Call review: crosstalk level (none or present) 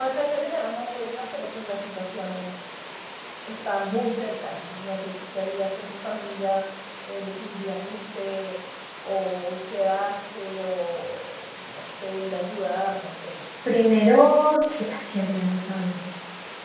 none